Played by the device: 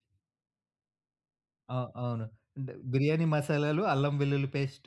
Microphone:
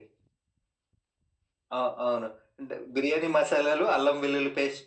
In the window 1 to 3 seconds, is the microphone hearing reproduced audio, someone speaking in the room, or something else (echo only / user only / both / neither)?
echo only